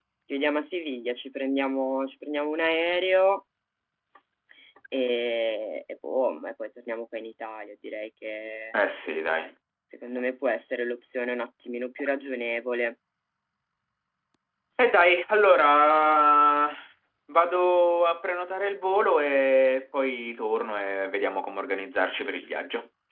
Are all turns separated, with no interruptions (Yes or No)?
Yes